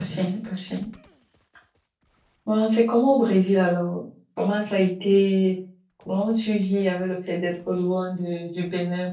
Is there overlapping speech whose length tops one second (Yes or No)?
No